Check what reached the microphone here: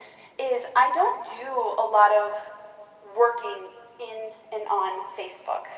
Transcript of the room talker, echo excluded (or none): none